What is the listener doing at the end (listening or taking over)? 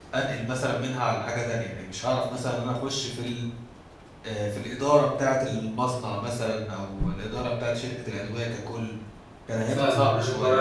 taking over